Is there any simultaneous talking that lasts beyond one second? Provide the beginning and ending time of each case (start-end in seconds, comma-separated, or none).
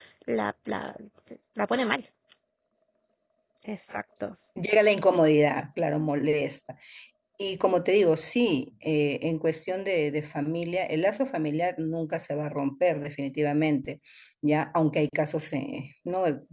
none